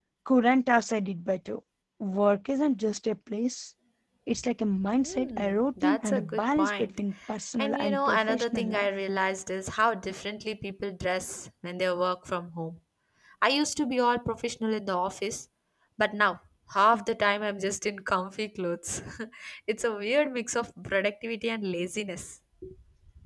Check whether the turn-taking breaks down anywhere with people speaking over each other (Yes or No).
Yes